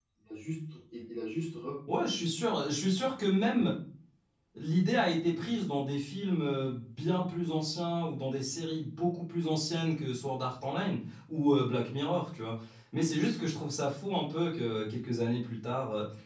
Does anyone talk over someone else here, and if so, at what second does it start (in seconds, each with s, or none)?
none